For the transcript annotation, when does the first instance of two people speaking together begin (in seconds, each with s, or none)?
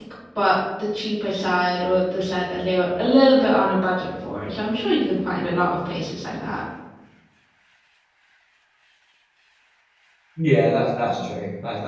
none